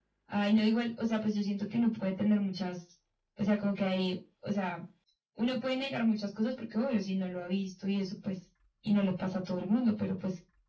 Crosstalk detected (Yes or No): No